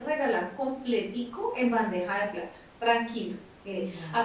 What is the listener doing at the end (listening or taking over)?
listening